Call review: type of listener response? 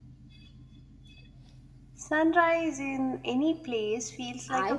taking over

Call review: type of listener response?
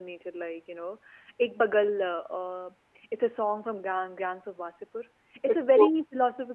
listening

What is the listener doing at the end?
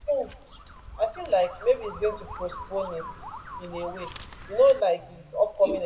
listening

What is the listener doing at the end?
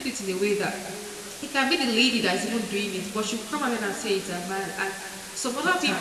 listening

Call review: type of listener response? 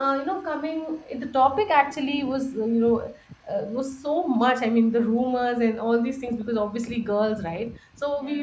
listening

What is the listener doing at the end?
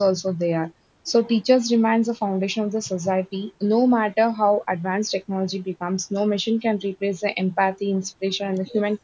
listening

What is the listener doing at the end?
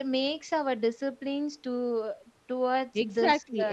taking over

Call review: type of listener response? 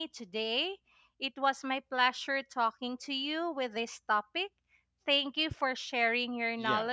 taking over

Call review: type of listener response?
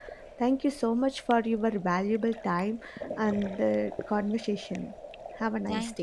taking over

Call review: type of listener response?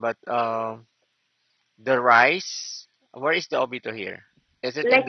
taking over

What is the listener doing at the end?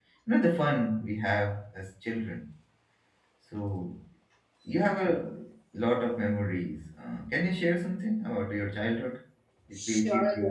taking over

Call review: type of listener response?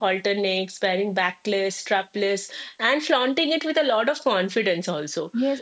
taking over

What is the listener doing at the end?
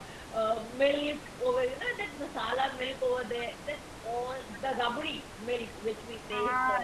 taking over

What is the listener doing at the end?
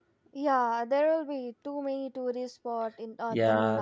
taking over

